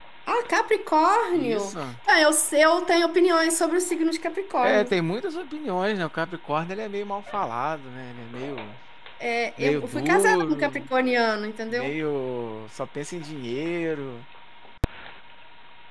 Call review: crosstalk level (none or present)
present